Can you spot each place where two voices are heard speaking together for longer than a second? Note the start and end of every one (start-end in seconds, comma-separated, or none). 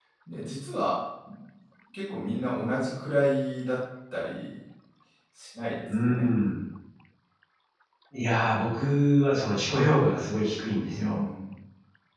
none